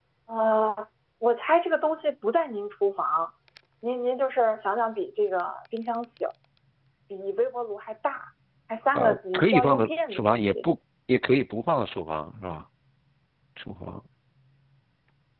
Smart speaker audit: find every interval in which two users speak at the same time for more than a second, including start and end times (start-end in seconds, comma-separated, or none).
9.0-10.5